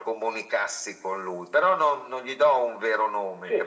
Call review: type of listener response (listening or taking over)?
taking over